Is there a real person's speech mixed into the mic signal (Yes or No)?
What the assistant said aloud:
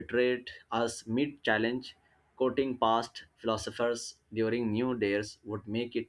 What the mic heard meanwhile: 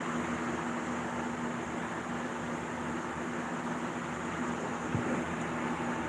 No